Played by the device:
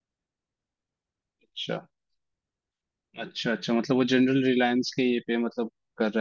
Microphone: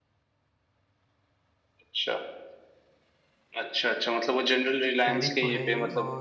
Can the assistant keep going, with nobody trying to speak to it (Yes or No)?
No